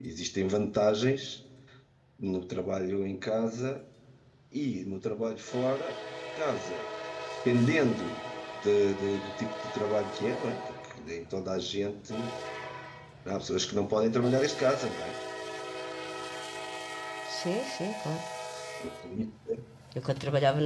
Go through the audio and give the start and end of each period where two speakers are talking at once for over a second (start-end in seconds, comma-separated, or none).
none